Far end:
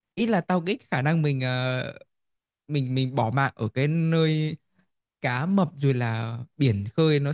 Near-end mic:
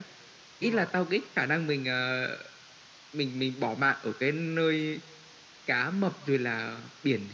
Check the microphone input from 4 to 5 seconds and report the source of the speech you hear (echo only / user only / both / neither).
echo only